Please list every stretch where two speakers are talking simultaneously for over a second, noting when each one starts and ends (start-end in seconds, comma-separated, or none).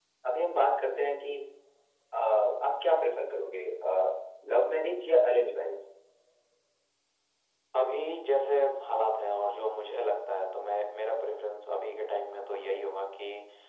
none